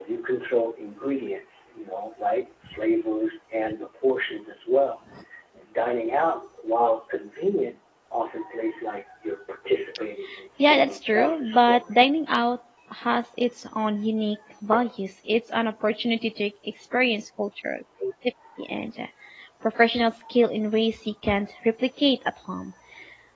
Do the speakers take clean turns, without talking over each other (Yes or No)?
No